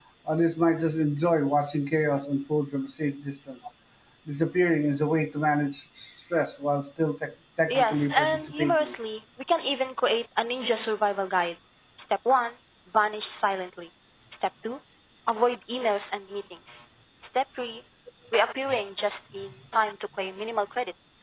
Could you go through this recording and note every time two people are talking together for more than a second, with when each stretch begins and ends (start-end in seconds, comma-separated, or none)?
7.7-8.9